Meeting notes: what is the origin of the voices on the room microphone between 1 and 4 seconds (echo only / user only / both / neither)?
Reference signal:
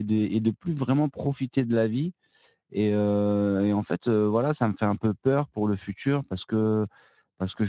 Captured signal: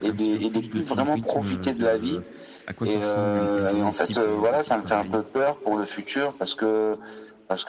both